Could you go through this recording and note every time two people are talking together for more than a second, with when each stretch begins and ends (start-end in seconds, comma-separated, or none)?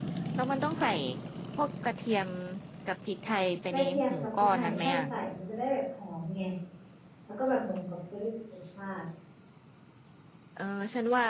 3.7-5.0